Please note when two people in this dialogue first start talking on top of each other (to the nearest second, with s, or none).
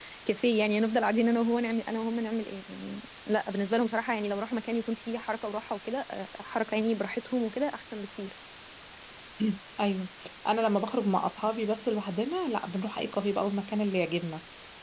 none